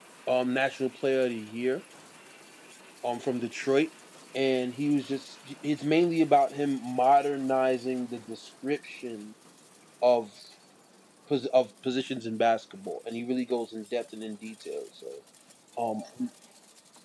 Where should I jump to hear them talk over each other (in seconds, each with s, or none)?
none